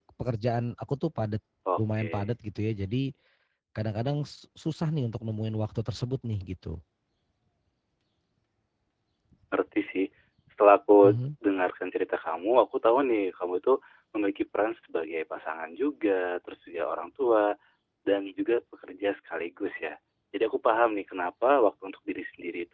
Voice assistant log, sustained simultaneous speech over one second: none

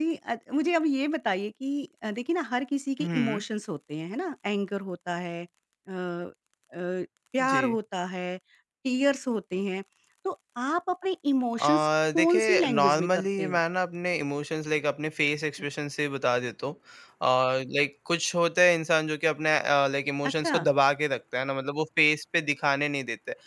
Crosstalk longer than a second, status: present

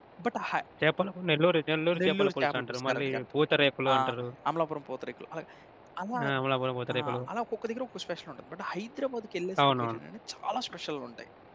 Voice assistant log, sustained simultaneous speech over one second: present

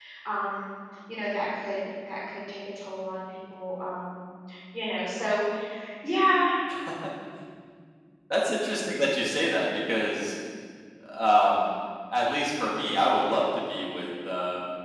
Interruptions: none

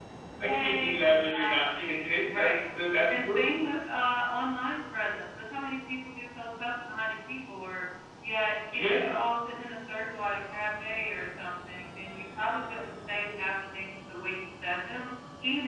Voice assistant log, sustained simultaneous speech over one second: present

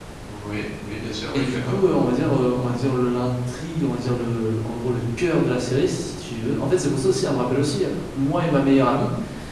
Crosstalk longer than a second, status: none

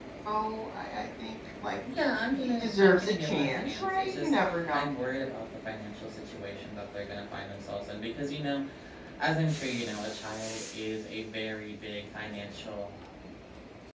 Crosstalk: present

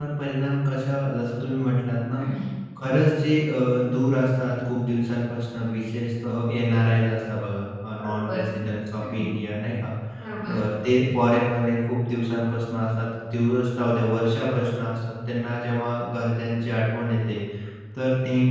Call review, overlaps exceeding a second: none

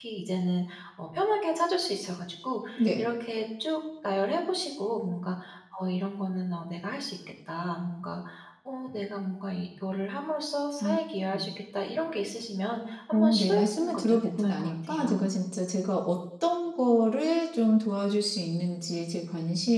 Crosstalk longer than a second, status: present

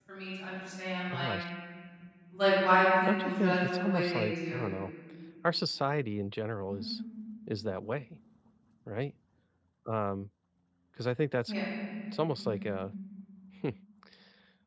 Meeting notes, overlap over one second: present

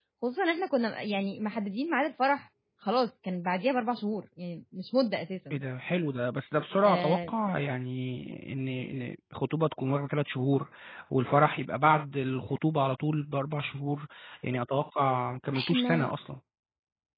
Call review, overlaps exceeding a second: none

